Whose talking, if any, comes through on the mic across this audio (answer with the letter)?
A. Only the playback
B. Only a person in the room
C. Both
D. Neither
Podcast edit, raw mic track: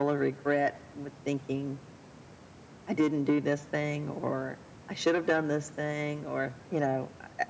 A